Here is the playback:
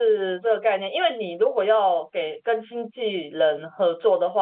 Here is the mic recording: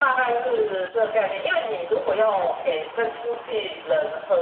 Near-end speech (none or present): none